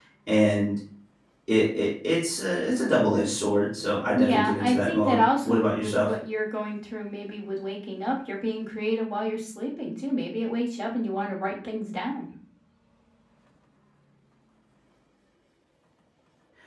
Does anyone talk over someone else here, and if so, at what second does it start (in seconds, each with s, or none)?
4.1 s